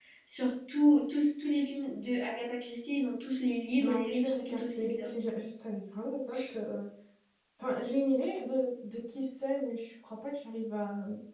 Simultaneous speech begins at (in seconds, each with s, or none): 3.8 s